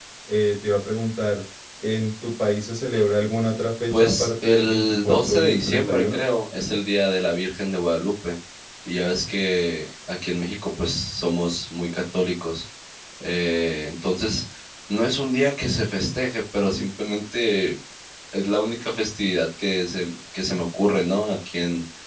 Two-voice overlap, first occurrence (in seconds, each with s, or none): 3.9 s